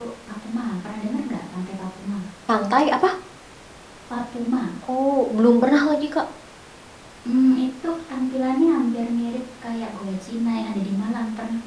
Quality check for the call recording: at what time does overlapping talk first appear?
none

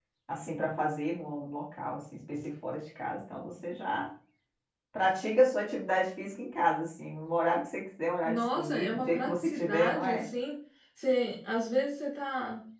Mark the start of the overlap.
8.2 s

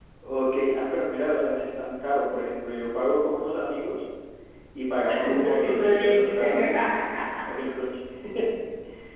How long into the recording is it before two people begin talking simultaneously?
5.2 s

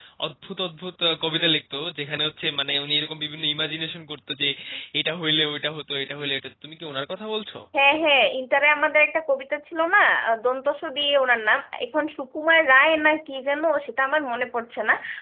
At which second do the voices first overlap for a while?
none

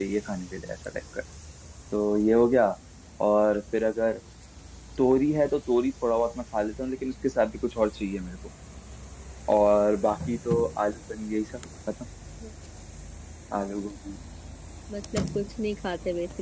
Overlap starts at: none

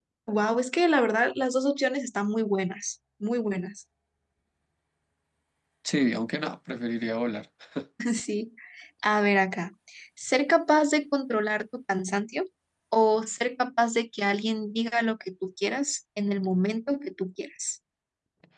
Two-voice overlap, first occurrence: none

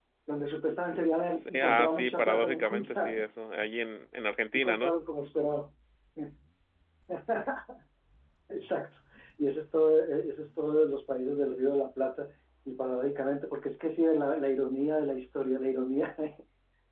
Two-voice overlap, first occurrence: 1.3 s

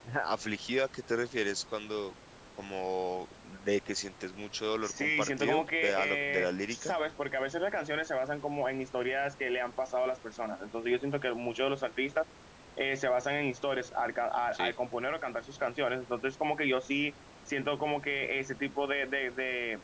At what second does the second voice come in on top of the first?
4.8 s

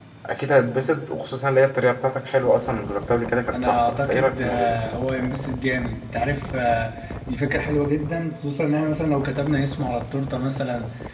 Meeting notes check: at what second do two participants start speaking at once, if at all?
3.5 s

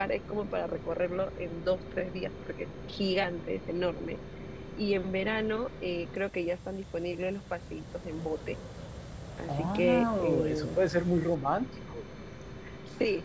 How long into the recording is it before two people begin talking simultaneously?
9.5 s

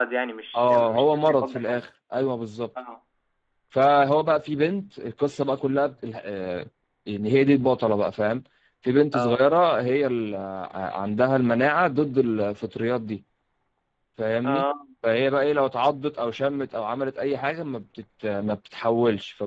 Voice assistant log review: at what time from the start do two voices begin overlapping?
0.5 s

